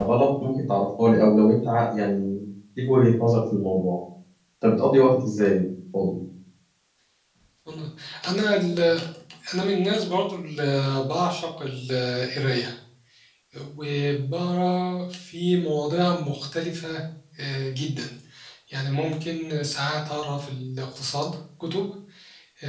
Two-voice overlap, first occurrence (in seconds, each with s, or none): none